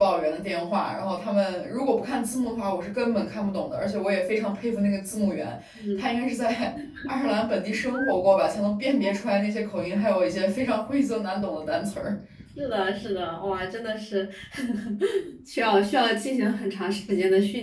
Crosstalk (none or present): none